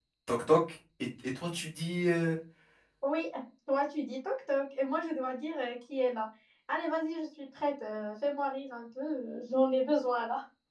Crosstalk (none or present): none